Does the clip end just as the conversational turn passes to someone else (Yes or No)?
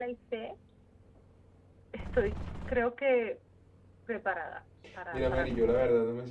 Yes